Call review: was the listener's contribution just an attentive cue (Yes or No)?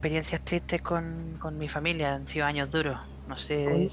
No